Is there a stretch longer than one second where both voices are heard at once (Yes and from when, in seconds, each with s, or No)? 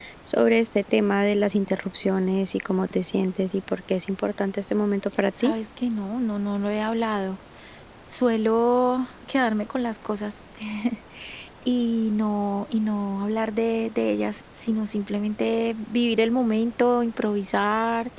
No